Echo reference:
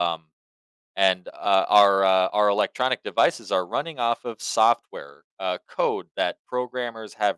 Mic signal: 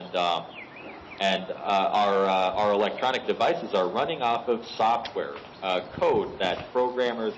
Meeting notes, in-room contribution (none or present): none